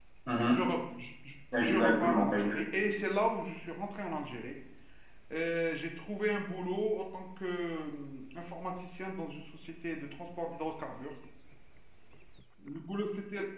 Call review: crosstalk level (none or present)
present